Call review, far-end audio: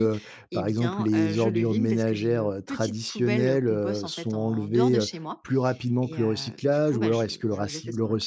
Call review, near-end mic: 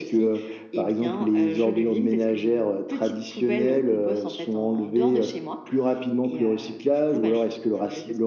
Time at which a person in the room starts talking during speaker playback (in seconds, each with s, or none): none